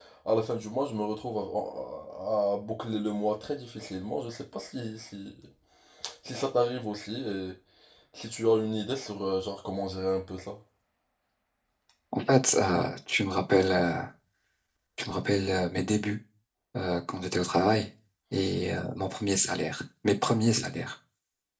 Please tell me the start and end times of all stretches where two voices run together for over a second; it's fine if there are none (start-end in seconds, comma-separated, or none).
none